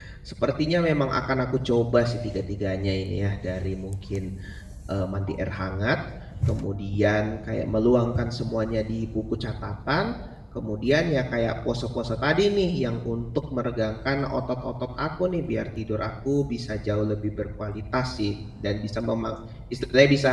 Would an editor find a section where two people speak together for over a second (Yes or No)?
No